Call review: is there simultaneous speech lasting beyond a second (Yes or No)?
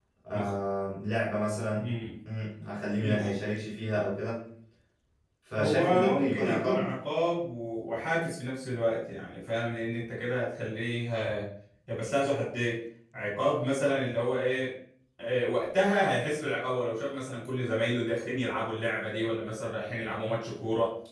Yes